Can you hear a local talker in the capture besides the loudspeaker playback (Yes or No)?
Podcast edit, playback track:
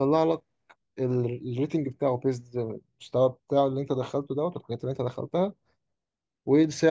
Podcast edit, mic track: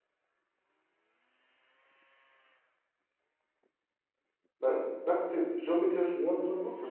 Yes